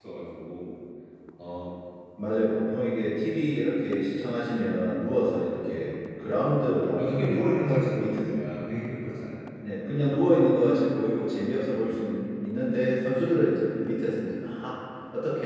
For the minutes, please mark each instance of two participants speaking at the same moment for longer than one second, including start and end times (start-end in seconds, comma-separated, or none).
7.0-8.3